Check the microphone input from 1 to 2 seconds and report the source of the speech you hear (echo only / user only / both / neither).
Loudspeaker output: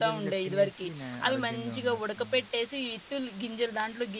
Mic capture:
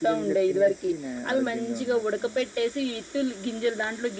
echo only